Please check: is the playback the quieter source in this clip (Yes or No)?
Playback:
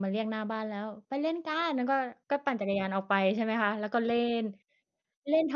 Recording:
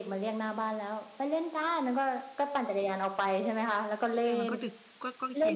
No